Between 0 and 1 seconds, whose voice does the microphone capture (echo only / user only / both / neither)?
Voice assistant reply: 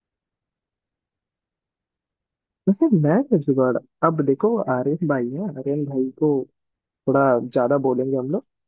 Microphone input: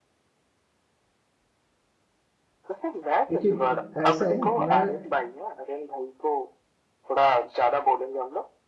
neither